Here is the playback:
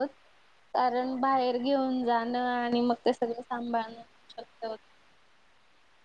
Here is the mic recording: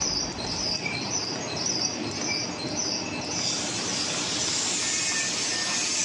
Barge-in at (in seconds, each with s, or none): none